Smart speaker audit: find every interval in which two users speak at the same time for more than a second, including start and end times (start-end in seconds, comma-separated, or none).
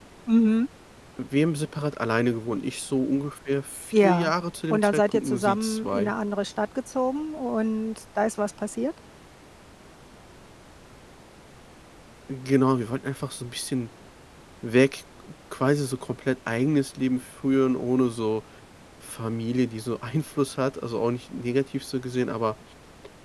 4.7-6.1